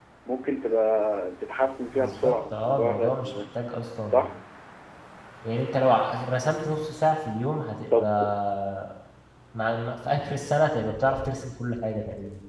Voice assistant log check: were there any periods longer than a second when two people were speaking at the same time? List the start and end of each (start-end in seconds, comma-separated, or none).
2.0-3.4